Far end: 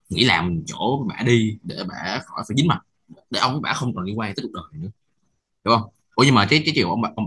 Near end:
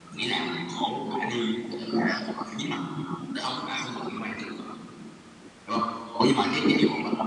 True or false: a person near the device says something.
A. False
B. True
A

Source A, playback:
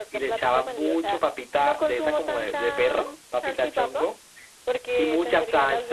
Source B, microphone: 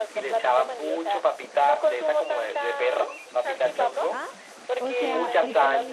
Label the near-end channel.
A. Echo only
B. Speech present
B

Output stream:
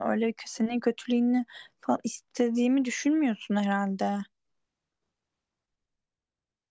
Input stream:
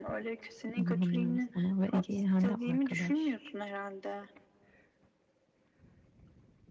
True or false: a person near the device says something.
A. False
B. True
B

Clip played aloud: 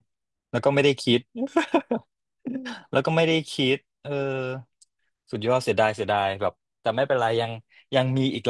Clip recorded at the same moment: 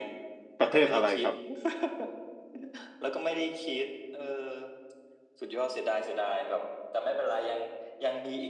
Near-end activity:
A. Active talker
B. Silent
A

